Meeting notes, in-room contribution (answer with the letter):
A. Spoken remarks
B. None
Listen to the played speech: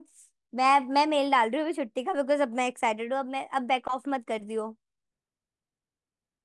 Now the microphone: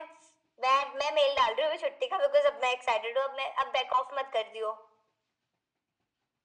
B